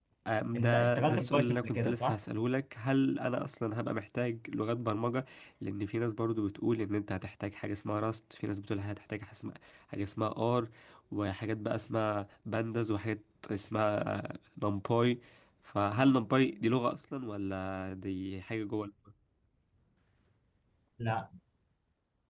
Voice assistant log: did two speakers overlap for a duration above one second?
Yes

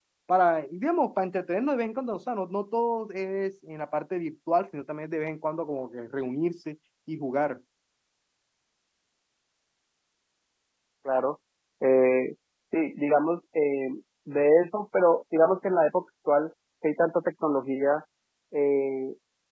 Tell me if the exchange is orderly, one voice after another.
Yes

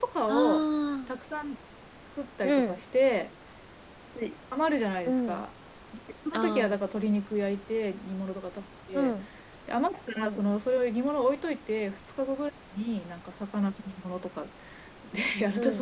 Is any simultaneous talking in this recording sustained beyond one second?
No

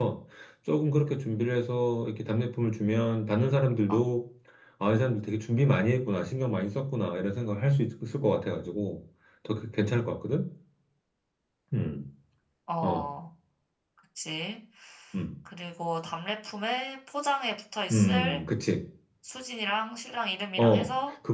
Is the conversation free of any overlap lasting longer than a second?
Yes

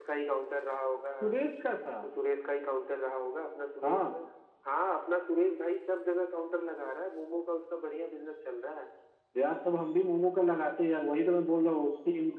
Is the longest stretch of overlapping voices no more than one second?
Yes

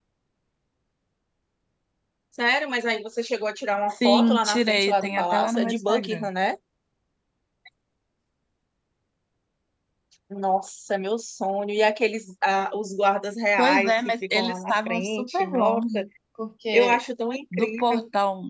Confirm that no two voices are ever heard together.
No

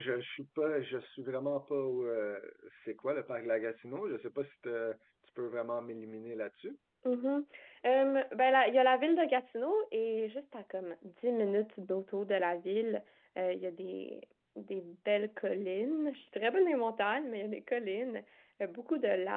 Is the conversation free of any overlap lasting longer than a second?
Yes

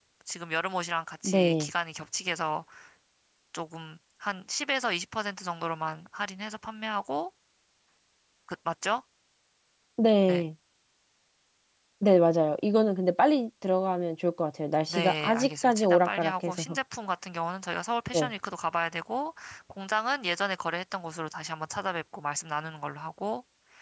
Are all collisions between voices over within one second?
No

